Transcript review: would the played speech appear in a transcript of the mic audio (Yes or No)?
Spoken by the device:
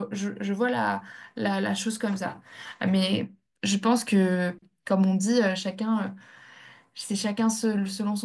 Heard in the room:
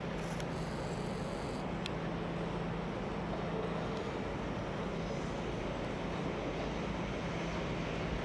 No